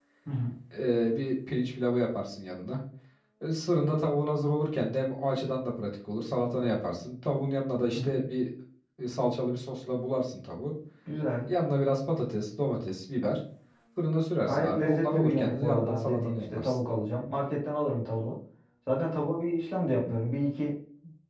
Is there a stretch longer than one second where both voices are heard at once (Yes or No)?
Yes